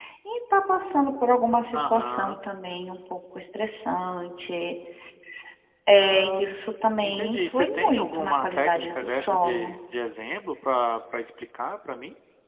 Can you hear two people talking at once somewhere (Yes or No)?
Yes